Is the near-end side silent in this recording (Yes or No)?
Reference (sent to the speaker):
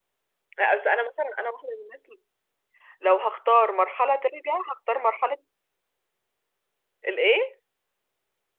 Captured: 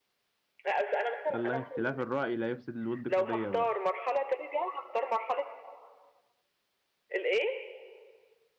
No